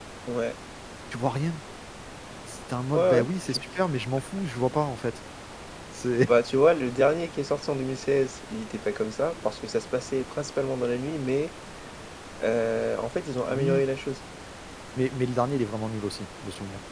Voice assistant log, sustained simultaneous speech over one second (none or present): none